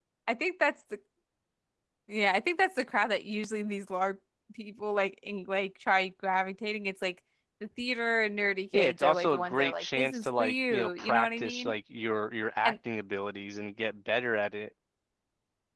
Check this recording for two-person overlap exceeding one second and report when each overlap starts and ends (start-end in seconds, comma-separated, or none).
8.7-11.7